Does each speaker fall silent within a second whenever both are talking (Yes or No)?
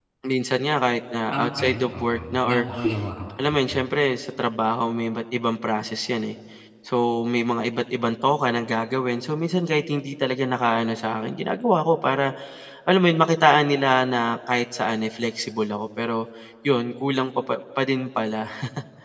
No